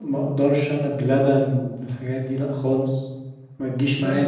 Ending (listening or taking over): taking over